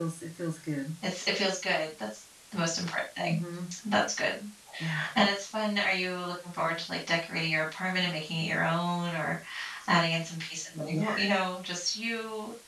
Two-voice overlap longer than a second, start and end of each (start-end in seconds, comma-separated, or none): none